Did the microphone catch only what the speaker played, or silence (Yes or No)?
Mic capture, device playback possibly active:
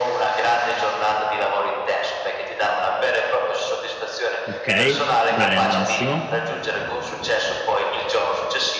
No